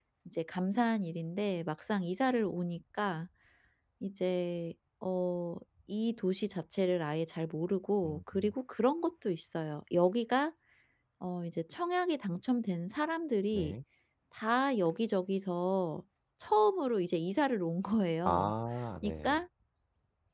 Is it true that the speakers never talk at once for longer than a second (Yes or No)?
Yes